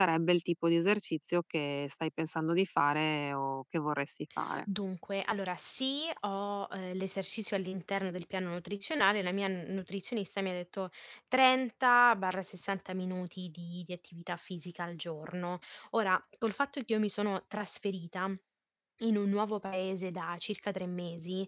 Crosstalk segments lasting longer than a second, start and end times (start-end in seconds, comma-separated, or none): none